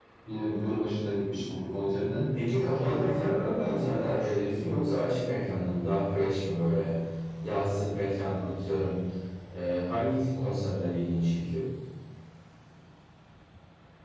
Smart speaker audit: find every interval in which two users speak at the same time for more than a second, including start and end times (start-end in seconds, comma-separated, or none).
2.5-5.0